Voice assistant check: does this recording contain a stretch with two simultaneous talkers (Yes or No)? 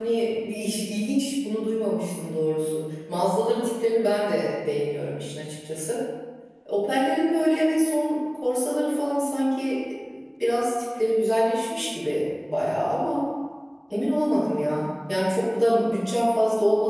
No